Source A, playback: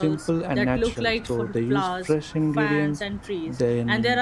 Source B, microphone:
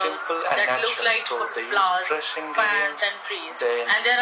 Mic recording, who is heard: echo only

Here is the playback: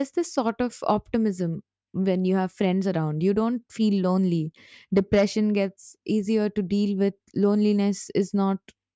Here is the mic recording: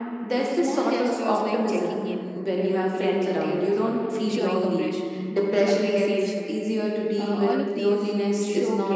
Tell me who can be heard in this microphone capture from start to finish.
both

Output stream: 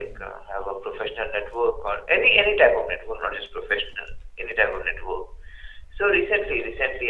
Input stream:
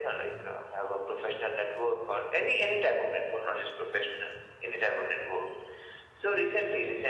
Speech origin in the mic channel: echo only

